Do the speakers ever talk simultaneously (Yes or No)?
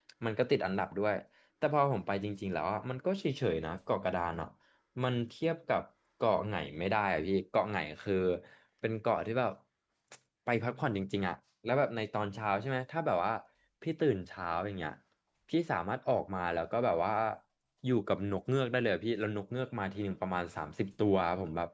No